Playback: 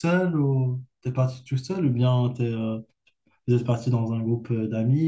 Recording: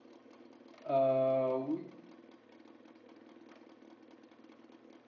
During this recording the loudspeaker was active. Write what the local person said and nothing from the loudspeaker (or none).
Euh, oui.